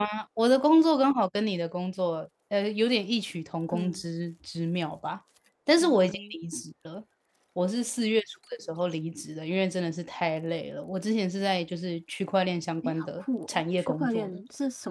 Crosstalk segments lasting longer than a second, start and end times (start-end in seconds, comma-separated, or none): 12.8-14.4